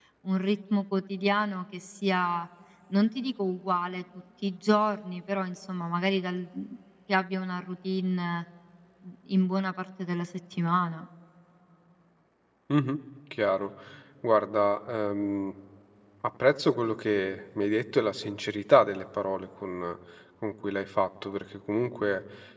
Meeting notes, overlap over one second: none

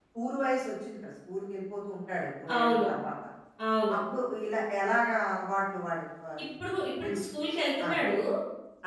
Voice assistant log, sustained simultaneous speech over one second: none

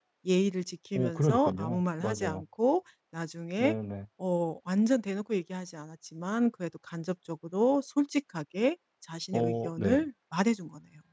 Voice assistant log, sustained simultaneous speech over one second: present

